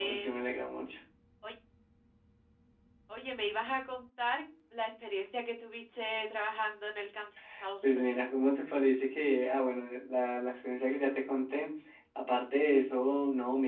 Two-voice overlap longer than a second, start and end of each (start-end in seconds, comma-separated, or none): none